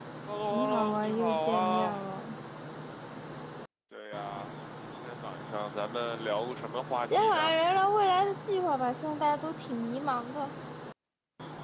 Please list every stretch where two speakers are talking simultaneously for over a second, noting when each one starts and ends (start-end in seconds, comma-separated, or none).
0.5-2.0